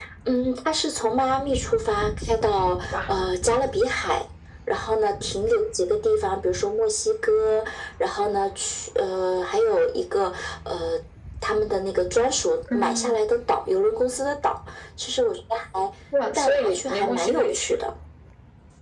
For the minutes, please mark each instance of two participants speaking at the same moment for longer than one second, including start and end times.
16.4-17.8

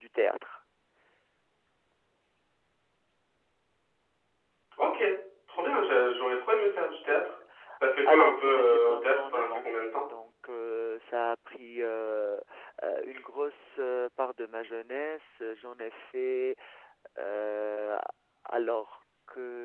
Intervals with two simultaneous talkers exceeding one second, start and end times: 8.1-9.6

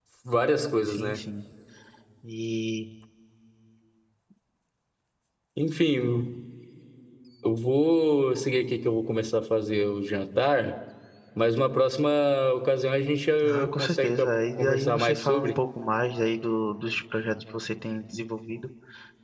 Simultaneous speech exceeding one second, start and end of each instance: 13.4-15.6

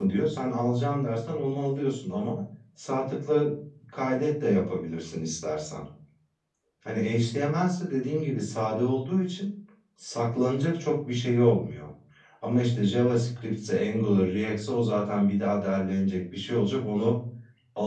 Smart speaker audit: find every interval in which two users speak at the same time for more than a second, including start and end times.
none

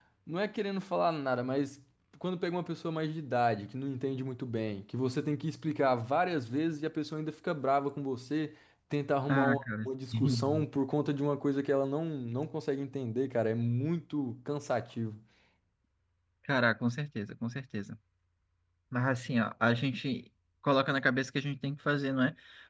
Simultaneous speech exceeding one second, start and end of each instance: 9.3-10.6

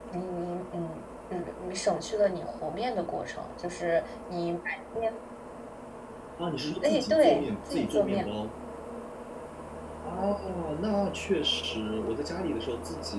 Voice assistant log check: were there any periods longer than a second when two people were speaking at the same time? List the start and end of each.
6.8-8.3

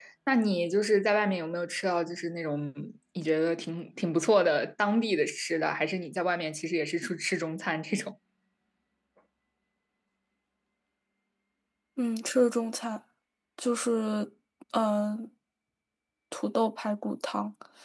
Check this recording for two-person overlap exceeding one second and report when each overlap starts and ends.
none

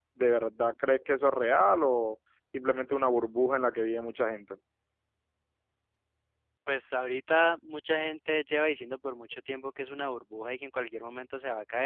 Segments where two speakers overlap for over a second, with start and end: none

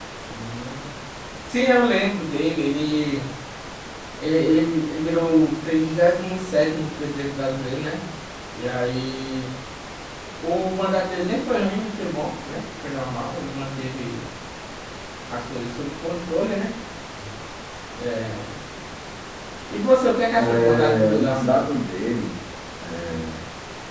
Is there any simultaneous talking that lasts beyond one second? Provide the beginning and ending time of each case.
20.4-21.7

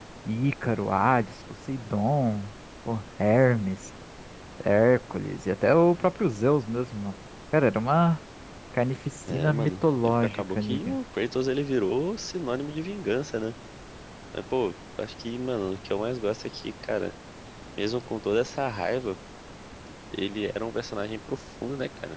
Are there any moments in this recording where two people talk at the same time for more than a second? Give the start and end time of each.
9.3-11.0

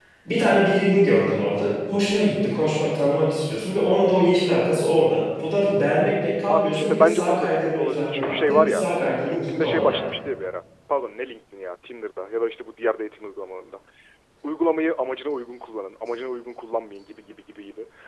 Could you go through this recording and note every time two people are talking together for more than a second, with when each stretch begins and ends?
6.5-10.0

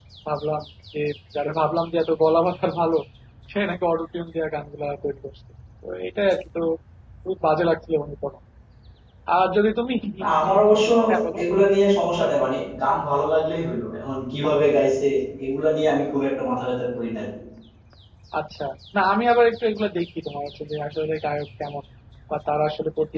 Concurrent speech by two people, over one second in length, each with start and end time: none

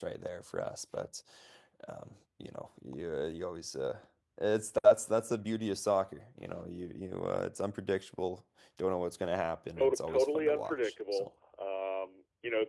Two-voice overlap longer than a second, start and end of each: 9.8-11.3

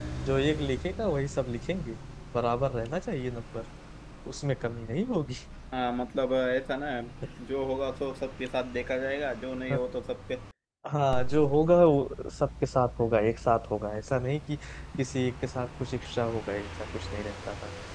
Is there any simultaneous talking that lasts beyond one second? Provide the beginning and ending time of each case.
none

